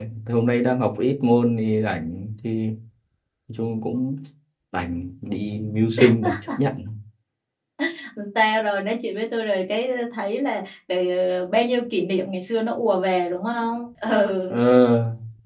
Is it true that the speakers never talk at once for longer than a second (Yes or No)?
Yes